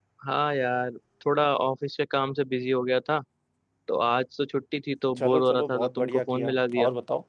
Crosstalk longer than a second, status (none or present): present